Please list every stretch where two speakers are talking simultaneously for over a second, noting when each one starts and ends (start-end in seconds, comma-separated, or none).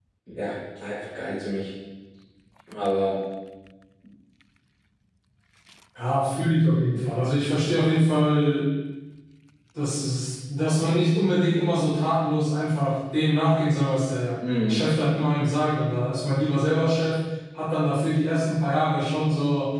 none